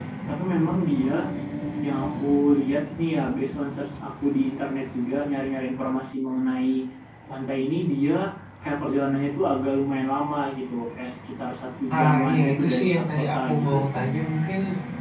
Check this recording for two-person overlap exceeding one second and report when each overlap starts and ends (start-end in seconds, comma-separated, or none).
11.9-13.8